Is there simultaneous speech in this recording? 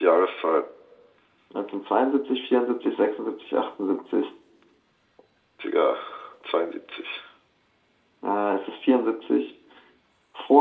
No

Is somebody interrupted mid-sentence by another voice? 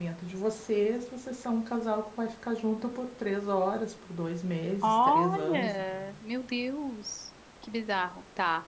Yes, from 4.8 s

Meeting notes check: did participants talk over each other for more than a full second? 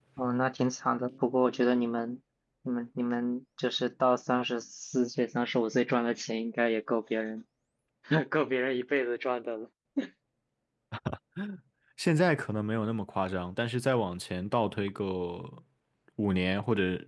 No

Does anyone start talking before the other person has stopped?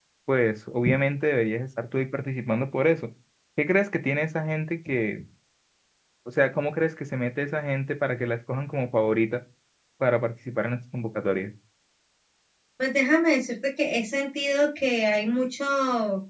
No

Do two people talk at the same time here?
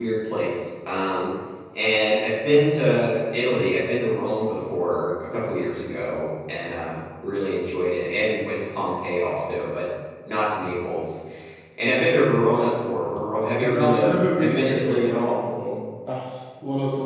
Yes, from 13.6 s

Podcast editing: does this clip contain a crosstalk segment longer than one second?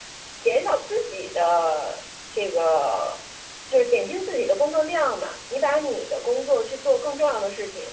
No

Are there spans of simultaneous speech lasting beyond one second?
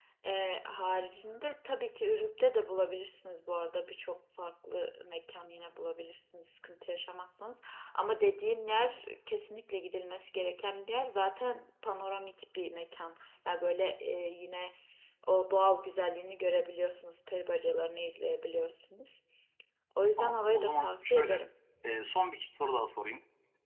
Yes, from 20.2 s

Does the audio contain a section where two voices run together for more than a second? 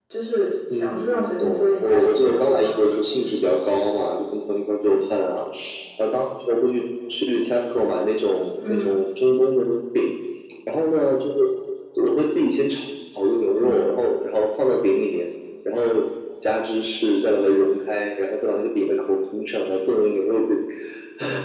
Yes, from 0.7 s

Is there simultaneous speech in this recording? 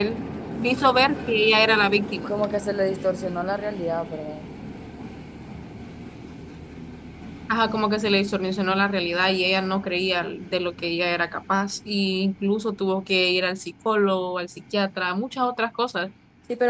No

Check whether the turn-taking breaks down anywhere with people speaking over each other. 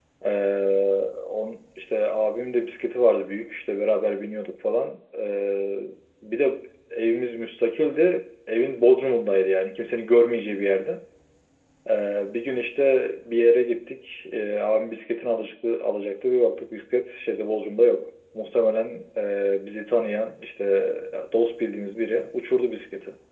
No

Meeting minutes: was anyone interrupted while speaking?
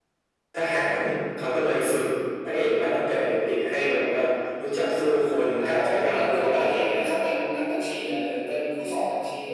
Yes, from 5.5 s

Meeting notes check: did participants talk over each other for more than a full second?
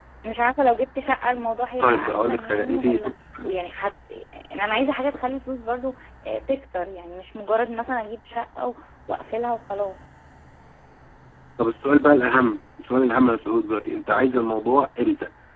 Yes, from 1.8 s

